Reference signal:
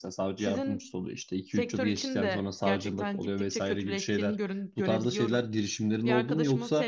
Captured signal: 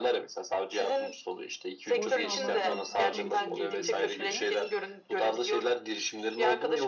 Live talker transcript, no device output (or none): boş kalmaktan sıkıldığım için girdim bu işe de.